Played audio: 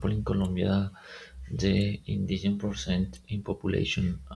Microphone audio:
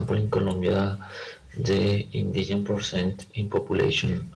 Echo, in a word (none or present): present